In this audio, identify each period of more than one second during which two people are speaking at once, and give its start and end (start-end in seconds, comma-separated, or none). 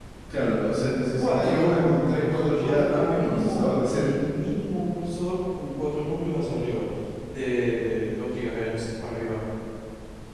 1.2-4.2